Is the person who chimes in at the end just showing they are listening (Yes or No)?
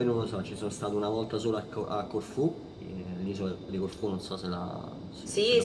No